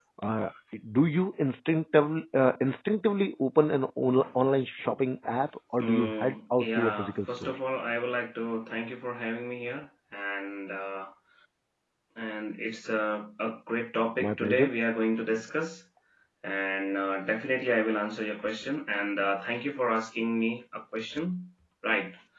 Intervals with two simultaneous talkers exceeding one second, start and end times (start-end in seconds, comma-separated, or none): 5.8-7.5